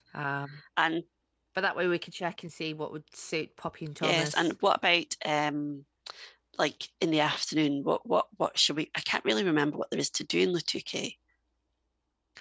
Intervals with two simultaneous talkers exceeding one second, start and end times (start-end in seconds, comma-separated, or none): none